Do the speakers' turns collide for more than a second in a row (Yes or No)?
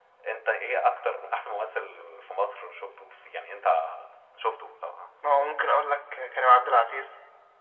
No